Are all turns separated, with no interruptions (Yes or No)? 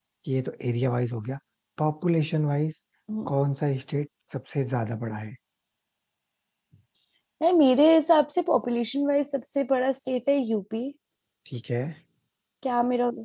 Yes